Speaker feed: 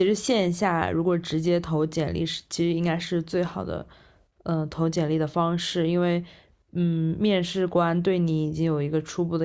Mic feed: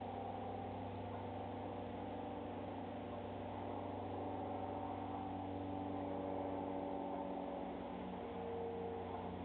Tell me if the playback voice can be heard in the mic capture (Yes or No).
No